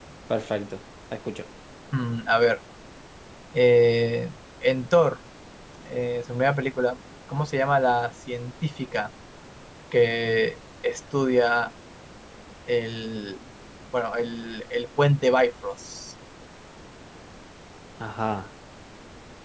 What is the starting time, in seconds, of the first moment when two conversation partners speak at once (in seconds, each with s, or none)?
none